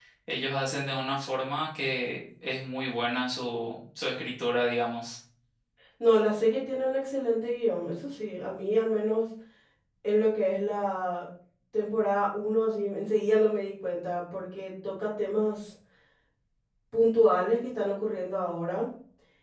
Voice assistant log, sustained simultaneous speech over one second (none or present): none